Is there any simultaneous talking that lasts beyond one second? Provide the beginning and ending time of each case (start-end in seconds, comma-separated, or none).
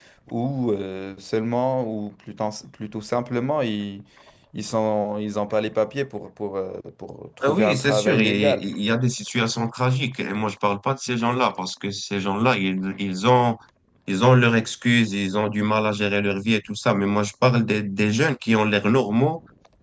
7.4-8.7